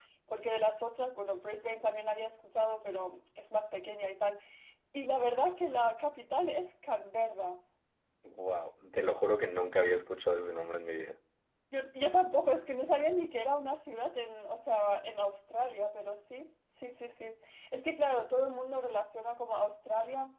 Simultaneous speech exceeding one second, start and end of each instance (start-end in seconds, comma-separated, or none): none